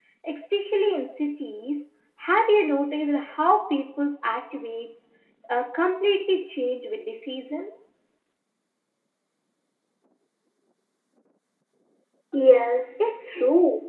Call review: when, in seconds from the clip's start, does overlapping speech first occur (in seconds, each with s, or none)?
none